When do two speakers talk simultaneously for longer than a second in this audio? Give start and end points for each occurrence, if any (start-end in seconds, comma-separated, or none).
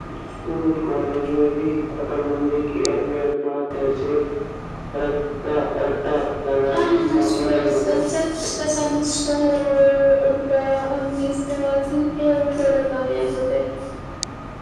6.7-8.0